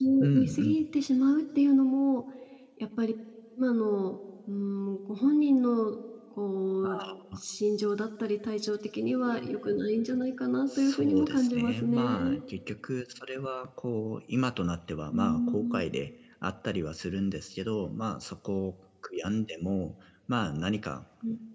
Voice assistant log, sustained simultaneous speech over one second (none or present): present